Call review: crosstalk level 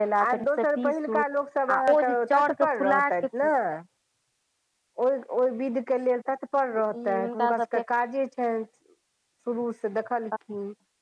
present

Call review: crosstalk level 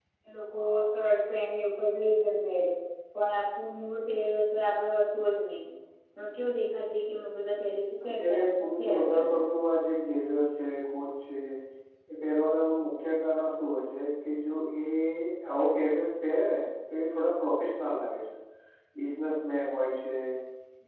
present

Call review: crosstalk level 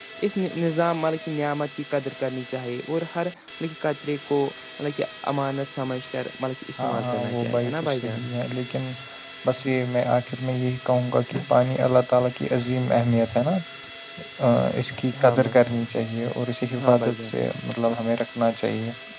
present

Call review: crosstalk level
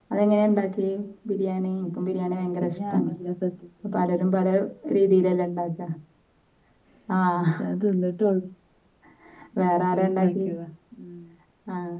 present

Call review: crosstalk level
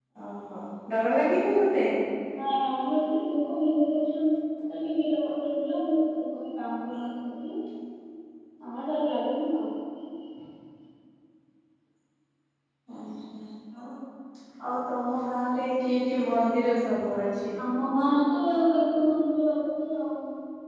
none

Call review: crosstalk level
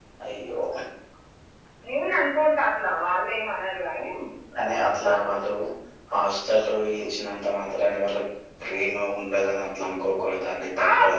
none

